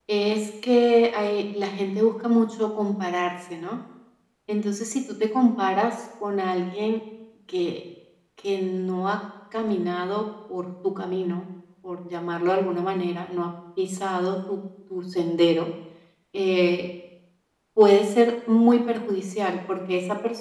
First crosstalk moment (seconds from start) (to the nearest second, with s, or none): none